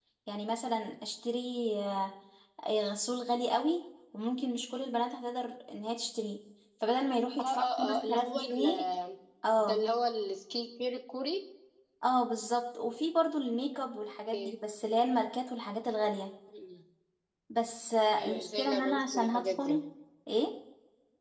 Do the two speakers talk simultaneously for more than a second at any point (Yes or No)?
Yes